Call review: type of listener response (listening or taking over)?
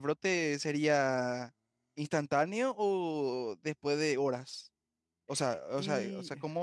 listening